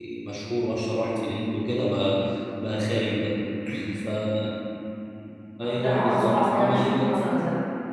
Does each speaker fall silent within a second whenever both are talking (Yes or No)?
No